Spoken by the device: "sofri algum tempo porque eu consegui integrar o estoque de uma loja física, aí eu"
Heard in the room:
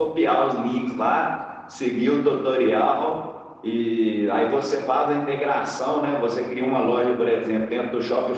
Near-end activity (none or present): present